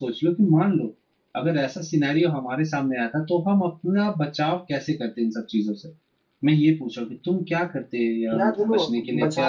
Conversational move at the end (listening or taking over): taking over